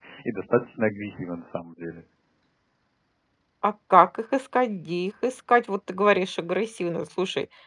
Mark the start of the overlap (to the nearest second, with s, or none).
none